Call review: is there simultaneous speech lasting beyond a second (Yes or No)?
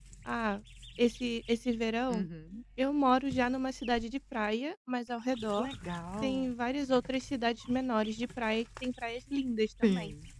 No